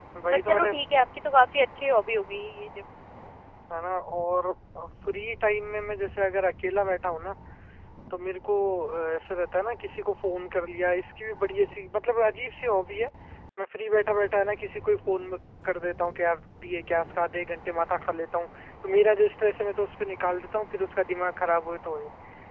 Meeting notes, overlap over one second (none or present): none